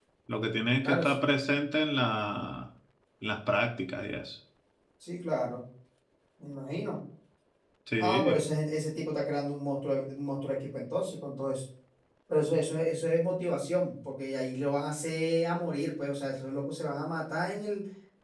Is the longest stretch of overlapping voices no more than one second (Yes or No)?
Yes